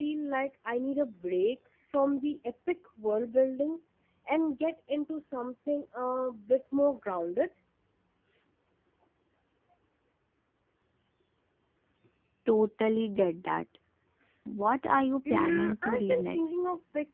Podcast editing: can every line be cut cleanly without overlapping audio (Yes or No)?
No